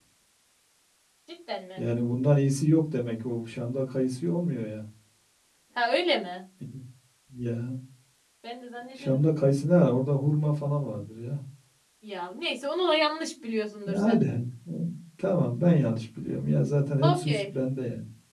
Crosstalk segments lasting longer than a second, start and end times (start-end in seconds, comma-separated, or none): none